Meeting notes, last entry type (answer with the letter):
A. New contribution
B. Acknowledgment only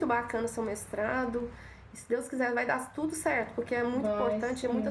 B